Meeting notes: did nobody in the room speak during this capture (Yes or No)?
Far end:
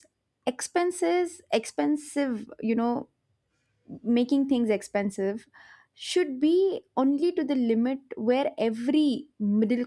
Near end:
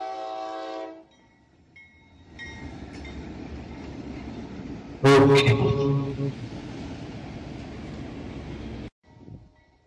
No